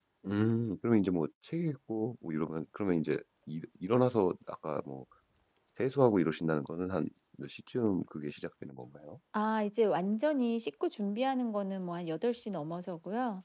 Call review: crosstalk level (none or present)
none